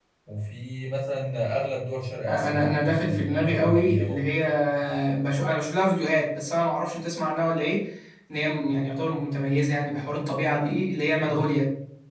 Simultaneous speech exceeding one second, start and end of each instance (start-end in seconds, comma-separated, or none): 2.3-4.2